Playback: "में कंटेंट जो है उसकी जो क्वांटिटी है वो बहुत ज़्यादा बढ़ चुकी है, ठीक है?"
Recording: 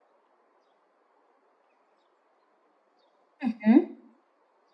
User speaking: Yes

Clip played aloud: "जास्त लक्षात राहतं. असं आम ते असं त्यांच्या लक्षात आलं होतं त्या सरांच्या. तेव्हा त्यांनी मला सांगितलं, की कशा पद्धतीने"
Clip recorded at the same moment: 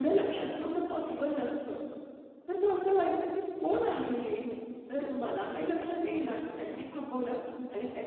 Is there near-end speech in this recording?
Yes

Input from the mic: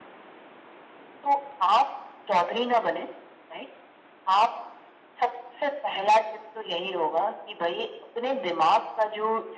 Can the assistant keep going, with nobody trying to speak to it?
Yes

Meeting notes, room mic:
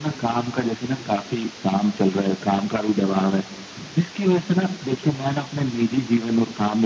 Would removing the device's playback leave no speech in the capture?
Yes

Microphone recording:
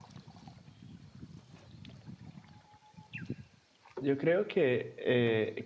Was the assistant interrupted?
Yes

